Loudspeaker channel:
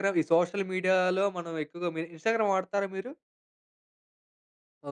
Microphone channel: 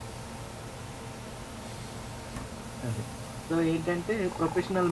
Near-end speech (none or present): present